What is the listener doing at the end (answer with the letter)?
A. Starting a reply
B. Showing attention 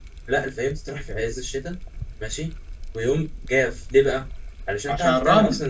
B